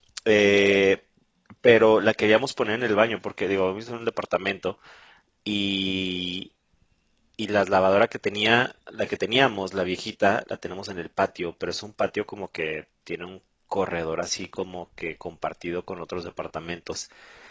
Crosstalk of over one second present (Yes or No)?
No